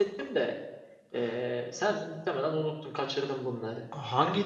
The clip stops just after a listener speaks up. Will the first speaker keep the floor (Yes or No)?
No